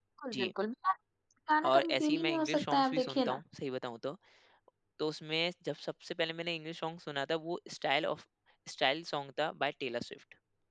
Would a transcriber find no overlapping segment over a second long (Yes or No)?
No